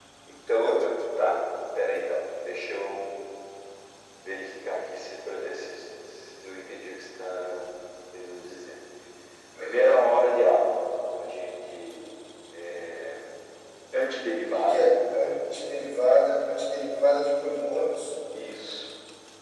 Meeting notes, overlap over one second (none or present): none